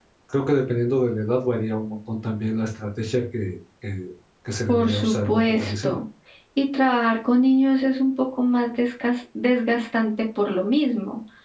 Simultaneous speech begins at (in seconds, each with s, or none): 4.7 s